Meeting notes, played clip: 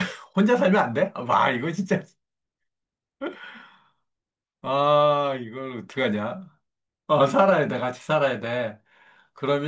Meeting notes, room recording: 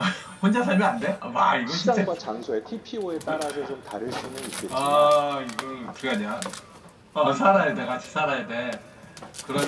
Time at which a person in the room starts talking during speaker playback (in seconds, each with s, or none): 1.6 s